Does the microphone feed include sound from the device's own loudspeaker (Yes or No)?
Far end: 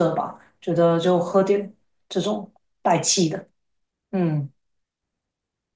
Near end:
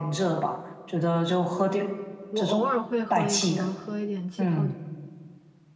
Yes